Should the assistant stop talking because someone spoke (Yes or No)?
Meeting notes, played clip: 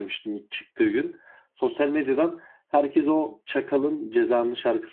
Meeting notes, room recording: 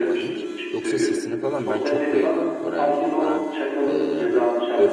Yes